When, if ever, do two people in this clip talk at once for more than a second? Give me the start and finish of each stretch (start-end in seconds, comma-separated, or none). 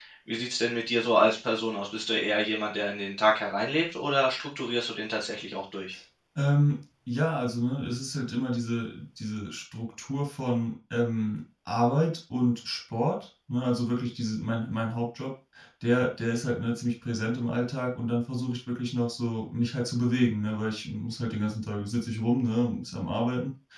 none